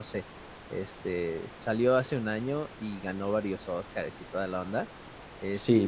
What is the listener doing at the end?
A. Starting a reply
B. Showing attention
A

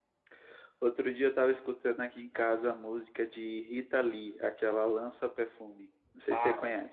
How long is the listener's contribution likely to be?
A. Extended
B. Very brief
A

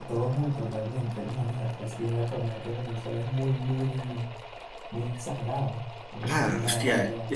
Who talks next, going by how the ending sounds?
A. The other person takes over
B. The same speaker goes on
A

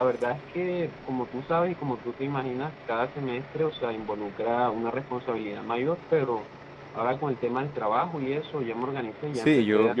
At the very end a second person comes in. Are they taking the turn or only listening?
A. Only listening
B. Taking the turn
B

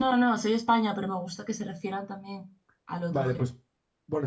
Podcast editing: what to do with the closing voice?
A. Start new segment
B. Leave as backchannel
A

